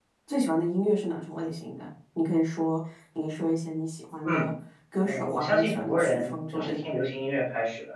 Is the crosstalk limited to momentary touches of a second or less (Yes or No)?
No